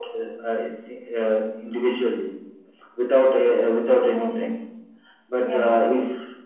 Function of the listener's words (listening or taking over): listening